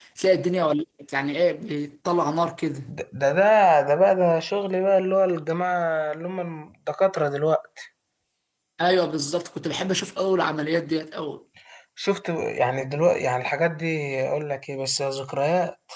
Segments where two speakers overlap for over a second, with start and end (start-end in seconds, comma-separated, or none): none